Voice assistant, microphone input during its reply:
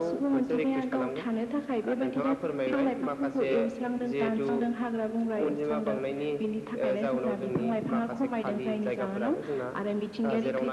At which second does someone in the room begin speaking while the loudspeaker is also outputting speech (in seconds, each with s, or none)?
none